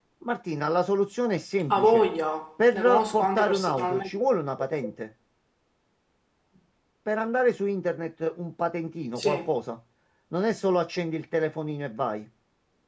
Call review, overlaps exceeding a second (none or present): present